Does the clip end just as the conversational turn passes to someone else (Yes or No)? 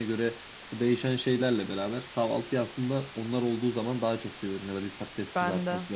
No